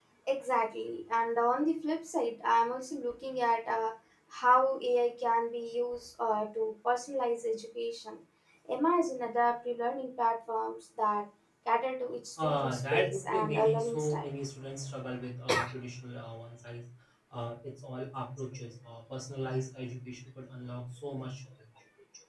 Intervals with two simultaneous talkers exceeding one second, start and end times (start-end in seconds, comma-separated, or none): 12.4-14.3